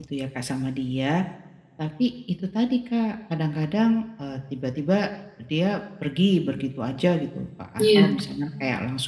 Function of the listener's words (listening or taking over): listening